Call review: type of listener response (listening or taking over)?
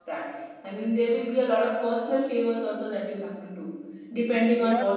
listening